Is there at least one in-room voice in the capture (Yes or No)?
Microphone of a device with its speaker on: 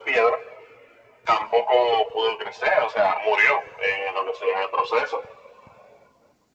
No